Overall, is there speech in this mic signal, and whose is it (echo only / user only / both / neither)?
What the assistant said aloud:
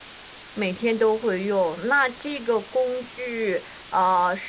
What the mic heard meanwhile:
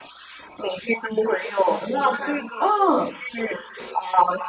both